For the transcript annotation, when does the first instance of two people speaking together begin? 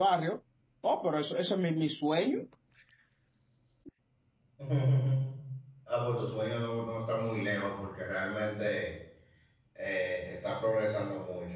none

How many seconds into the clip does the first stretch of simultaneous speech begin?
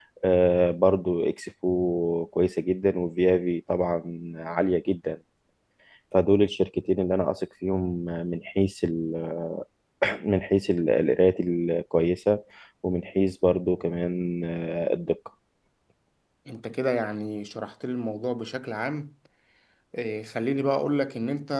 none

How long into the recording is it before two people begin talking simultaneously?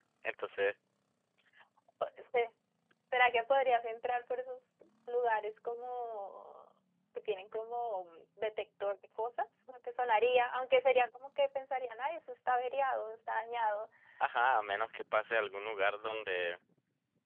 none

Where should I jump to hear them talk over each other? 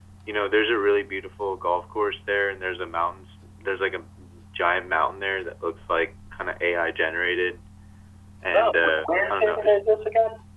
9 s

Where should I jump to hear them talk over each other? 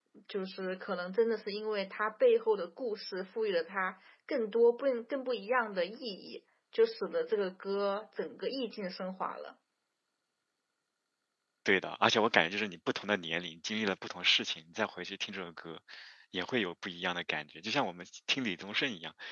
none

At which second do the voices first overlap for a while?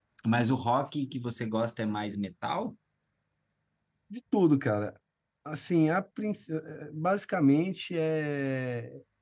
none

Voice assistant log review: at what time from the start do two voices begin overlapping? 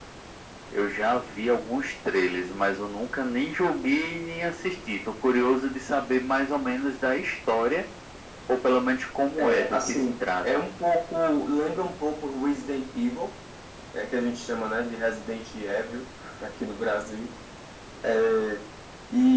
9 s

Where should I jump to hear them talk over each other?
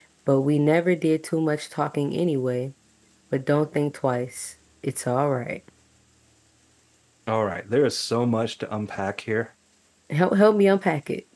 none

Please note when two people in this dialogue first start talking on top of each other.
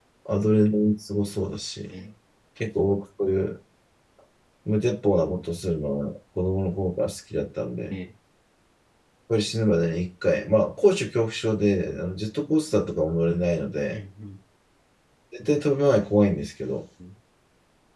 none

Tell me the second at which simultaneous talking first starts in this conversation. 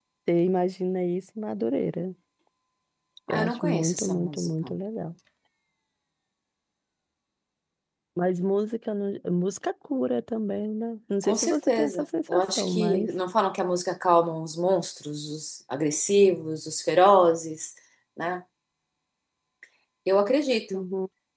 3 s

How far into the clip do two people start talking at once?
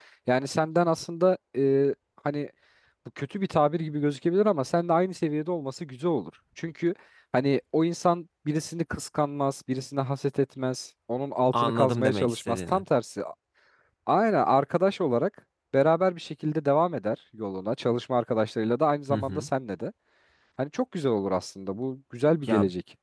12 s

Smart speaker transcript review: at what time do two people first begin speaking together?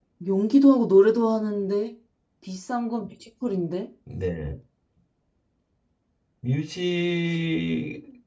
none

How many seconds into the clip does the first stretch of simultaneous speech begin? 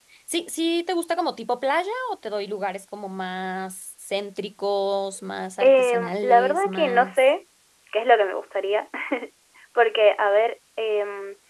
6 s

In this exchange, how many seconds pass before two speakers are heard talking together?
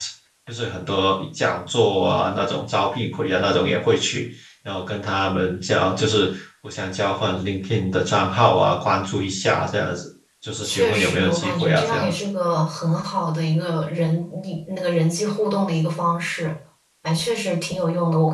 11 s

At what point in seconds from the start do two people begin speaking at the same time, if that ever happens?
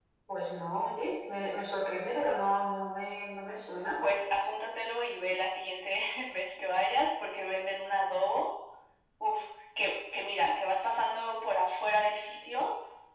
none

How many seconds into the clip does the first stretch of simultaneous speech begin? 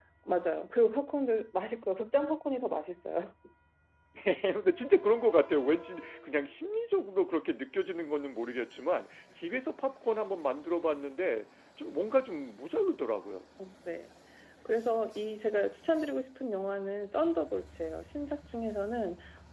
none

